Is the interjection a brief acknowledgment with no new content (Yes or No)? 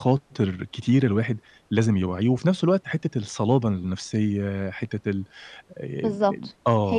No